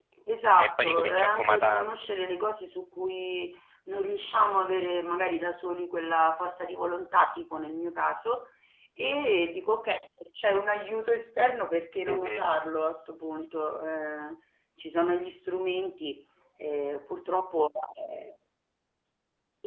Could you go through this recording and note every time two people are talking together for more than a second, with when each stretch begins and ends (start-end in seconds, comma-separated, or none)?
0.5-1.9